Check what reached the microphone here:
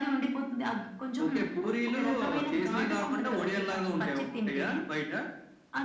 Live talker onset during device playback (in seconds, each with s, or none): none